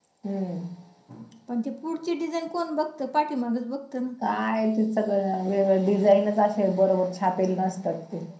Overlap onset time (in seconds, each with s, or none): none